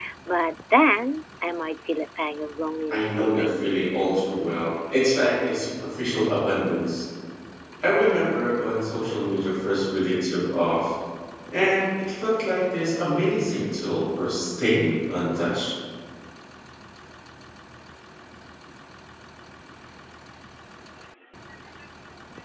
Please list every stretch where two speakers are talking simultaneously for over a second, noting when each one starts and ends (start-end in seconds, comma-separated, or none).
2.9-4.2